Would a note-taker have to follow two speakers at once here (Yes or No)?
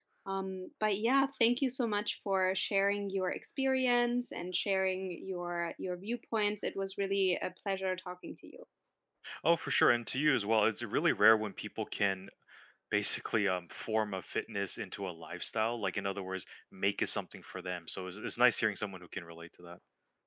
No